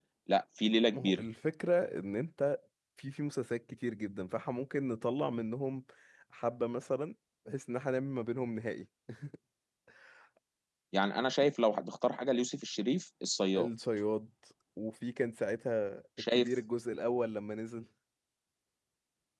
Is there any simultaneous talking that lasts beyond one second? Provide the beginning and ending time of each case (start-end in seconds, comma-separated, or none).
none